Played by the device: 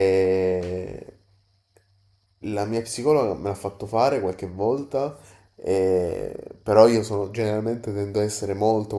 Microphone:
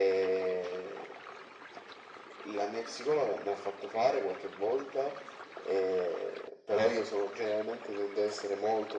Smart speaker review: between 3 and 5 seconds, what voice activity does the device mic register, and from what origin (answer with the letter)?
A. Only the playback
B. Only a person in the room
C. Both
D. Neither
A